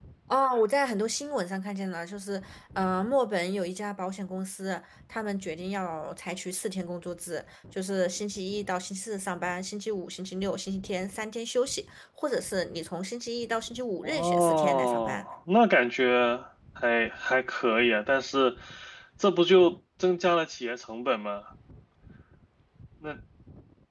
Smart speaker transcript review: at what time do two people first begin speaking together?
14.0 s

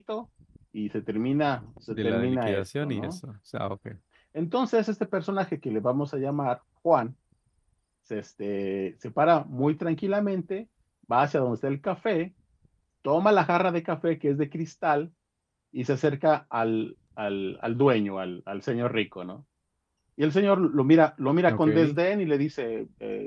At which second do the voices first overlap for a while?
1.9 s

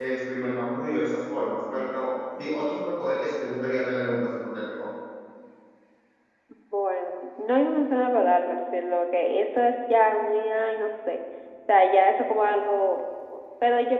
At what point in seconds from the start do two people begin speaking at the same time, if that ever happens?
none

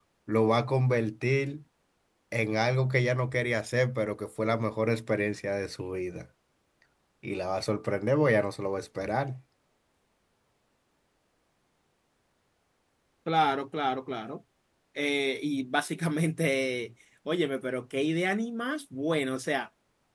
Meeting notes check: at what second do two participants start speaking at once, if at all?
none

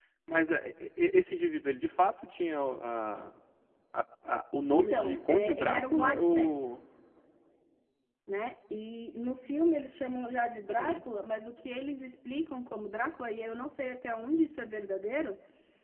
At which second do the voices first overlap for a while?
4.7 s

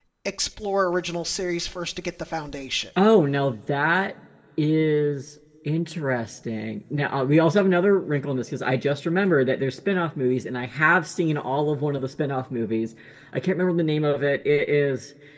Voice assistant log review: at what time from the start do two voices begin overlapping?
none

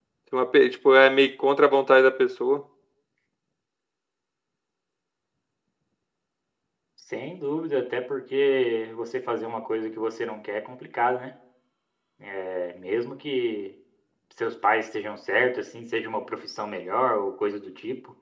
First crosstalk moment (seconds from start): none

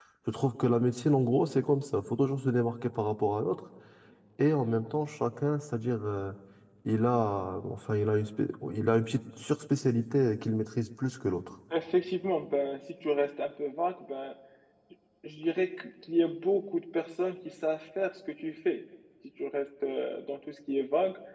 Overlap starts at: none

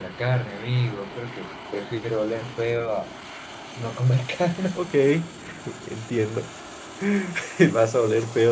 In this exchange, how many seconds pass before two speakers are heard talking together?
none

